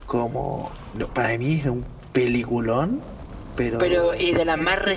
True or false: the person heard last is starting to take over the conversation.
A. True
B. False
A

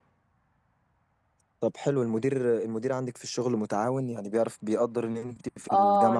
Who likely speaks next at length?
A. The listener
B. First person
A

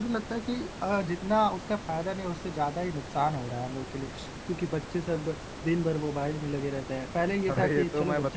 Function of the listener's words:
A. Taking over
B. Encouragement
A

